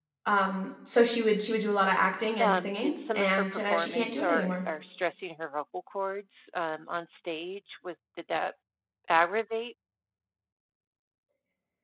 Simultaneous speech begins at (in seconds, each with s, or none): 2.4 s